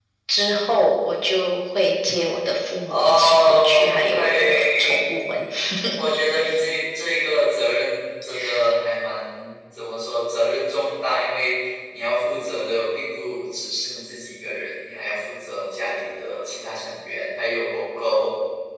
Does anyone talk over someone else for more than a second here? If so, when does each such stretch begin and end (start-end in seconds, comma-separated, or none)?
2.9-5.0